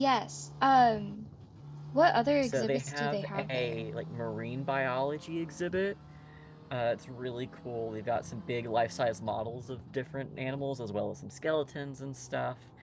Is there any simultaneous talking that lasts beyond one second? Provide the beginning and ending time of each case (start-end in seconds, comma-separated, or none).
2.4-3.9